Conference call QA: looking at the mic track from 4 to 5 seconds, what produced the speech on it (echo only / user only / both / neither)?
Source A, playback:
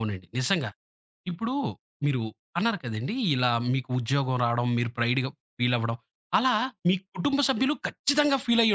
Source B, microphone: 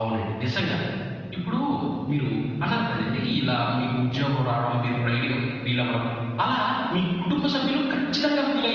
echo only